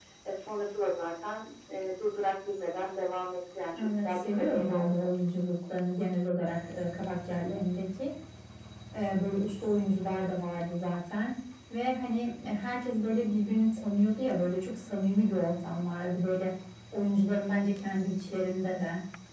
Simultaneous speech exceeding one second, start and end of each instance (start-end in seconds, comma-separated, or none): 3.8-5.1